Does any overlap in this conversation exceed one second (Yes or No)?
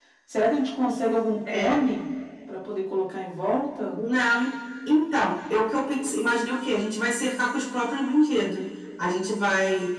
No